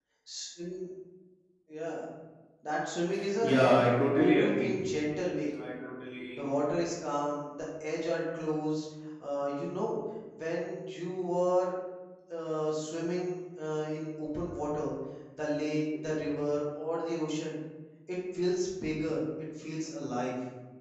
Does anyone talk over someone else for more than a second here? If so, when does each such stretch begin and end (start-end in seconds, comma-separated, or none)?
3.4-4.7